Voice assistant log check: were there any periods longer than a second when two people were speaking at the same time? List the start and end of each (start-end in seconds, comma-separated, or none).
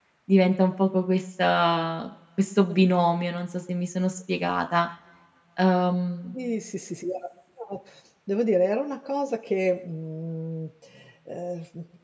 none